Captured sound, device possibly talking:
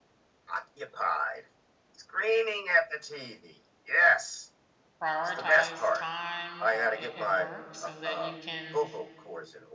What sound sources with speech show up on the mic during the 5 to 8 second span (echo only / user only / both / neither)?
both